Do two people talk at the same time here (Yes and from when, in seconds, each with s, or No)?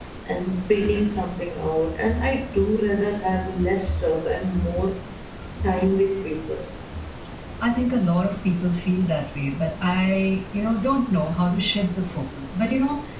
No